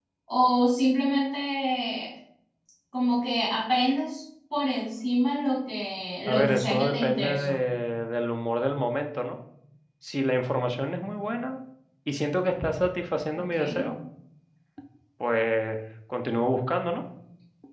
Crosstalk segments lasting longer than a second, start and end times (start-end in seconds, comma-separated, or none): 6.2-7.6